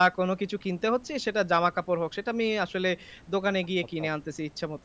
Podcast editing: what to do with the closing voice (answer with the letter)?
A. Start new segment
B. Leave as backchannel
B